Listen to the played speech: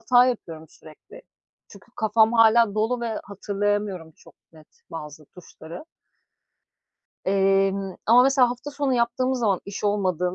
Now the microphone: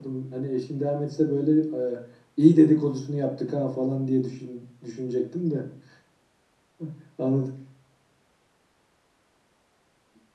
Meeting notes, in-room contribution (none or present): present